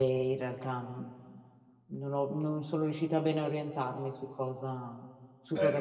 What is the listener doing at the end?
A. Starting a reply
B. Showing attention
A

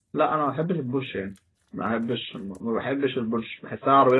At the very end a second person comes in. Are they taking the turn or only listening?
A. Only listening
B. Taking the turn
A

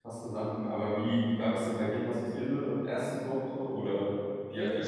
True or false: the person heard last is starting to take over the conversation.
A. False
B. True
B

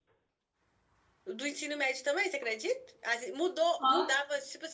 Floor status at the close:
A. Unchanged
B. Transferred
A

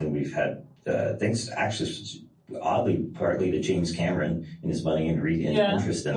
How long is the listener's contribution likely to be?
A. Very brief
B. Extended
B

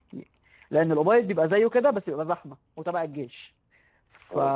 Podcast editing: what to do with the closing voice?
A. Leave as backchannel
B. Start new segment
A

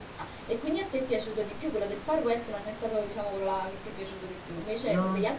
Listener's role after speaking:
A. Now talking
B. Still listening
B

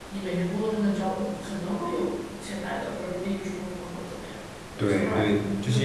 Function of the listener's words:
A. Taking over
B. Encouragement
A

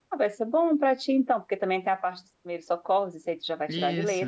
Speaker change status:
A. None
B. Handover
A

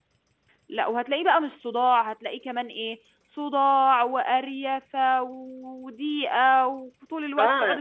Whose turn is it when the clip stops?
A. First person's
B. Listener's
B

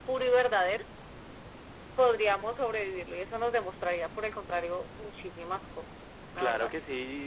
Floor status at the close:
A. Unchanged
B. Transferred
B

